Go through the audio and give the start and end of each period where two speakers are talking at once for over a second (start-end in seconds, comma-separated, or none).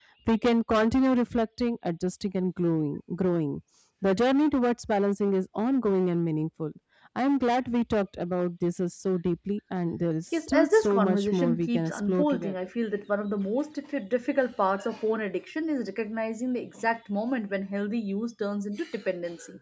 10.5-12.5